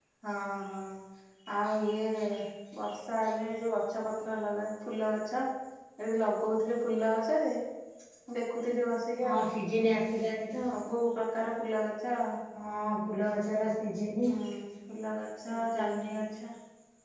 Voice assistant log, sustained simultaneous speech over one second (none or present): none